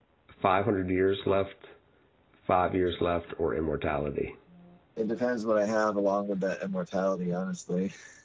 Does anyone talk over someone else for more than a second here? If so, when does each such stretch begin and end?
none

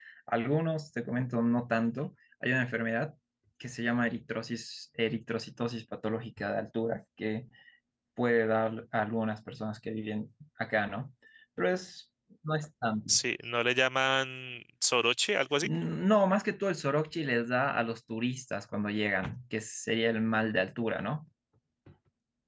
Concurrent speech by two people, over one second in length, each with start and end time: none

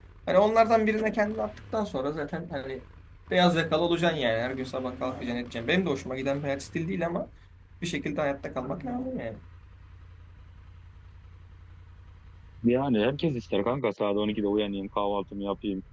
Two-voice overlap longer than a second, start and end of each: none

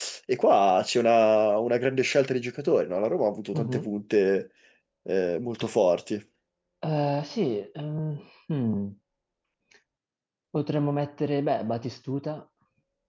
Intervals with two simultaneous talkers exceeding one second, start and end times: none

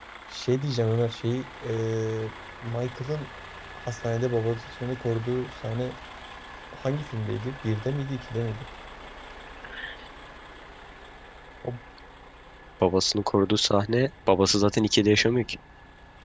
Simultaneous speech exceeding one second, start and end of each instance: none

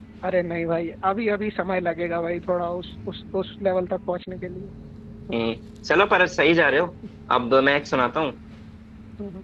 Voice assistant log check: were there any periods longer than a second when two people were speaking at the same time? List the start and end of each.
none

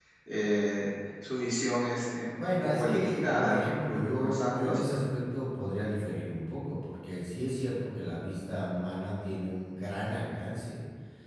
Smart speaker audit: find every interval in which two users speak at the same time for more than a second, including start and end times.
2.4-4.8

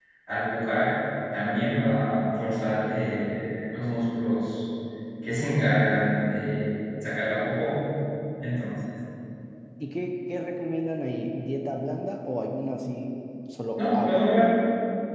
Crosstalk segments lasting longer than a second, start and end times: none

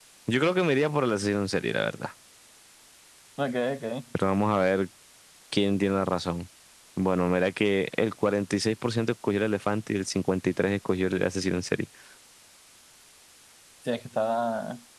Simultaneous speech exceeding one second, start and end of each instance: none

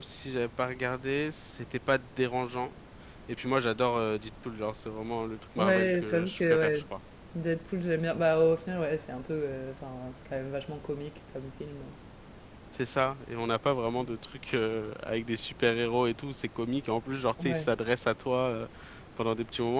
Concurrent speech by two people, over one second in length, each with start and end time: 5.6-6.8

